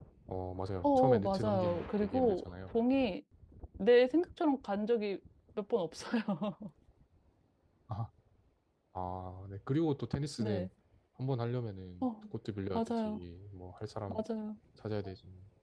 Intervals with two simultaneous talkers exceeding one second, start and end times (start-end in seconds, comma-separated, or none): 0.8-2.5